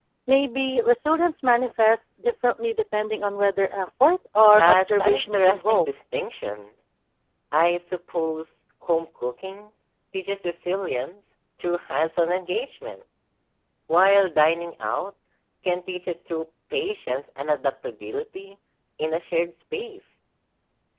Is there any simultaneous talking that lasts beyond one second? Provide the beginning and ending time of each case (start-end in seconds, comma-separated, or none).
4.6-5.9